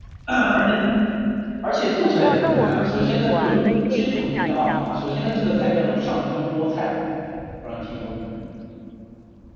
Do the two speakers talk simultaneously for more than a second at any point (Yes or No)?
Yes